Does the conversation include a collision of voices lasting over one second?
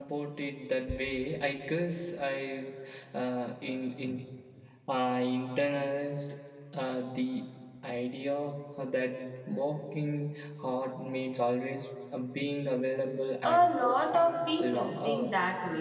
Yes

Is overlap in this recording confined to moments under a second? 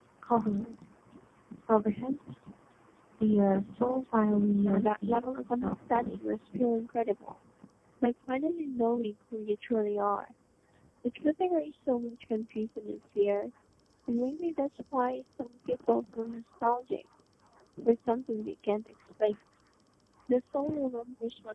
No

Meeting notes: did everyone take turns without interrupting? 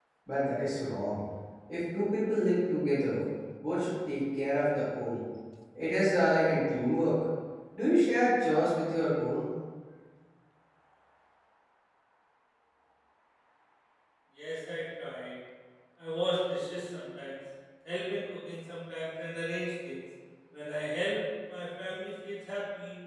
Yes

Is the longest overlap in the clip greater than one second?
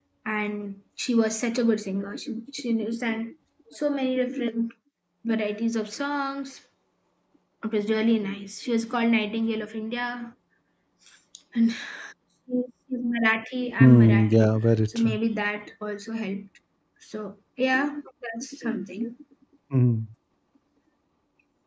Yes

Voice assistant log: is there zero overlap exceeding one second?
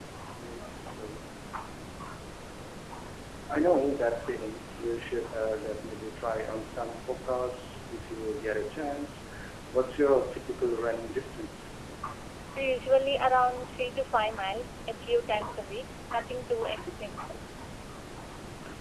Yes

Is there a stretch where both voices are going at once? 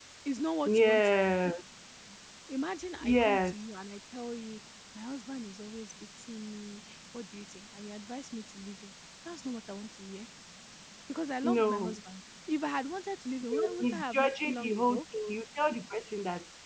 Yes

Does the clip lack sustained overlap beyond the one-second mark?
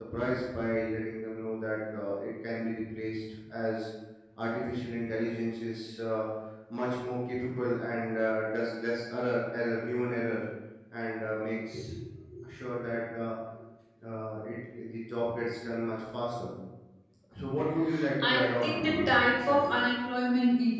No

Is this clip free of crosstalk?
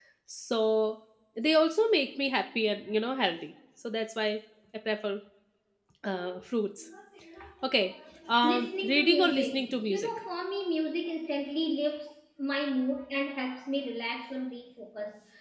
No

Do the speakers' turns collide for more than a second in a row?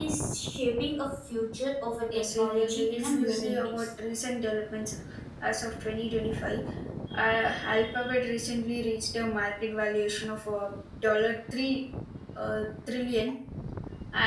Yes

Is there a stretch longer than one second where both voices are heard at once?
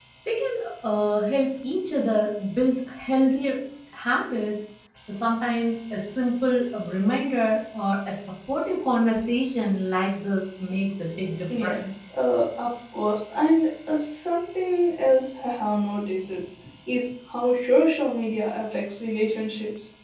No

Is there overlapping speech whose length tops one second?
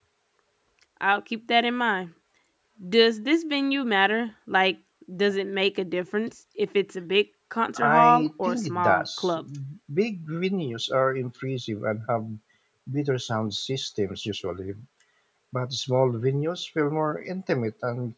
Yes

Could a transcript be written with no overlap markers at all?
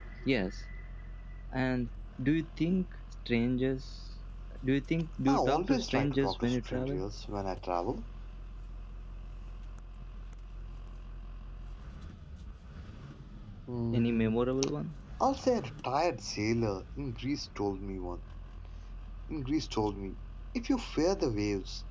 No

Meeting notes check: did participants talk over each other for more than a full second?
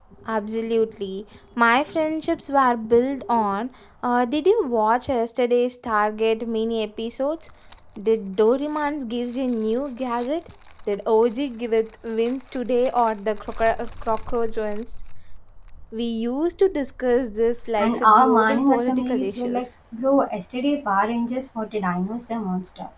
Yes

